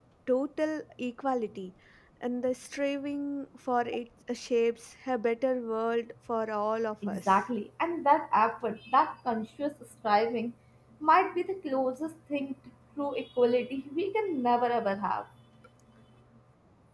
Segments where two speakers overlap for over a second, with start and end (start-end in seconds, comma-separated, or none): none